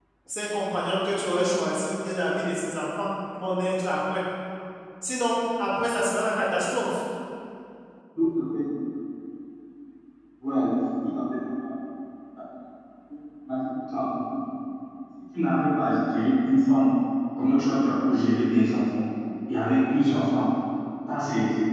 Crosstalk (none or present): none